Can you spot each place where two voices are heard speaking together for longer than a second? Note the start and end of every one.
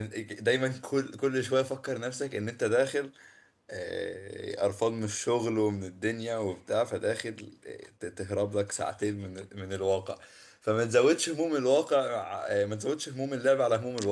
none

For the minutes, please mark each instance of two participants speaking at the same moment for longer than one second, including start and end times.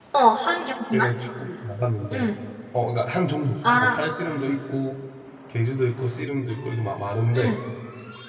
none

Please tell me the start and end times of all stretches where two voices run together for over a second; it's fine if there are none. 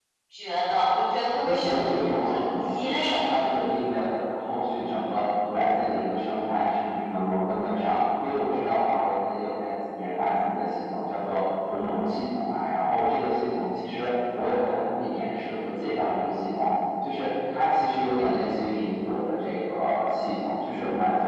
2.2-3.4

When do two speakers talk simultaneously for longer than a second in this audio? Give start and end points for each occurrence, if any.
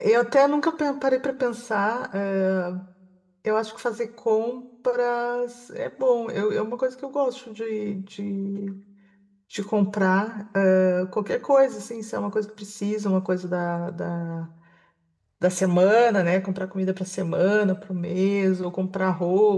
none

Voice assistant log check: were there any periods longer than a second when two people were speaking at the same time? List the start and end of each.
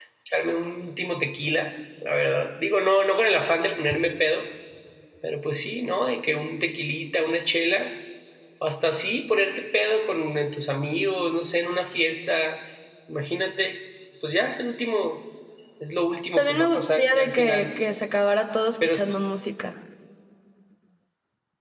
16.4-17.7

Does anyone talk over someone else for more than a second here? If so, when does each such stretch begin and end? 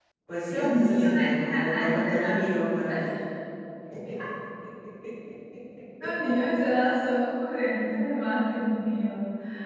0.5-2.3

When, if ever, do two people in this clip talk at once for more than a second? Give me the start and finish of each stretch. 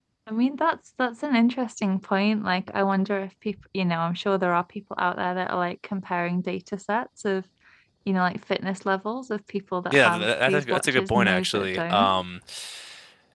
9.9-12.2

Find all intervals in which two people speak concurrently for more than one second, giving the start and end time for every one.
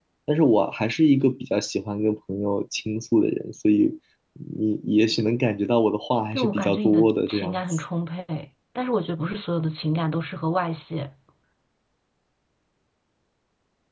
6.3-7.8

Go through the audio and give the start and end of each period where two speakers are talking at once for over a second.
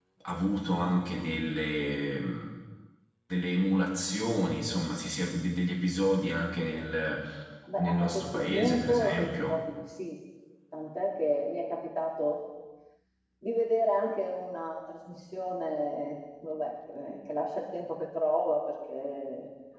7.8-9.6

